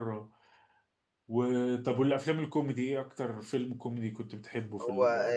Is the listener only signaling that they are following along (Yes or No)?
No